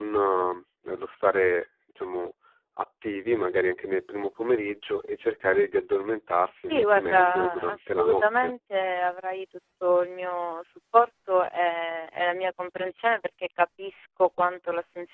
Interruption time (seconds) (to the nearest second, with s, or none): 7 s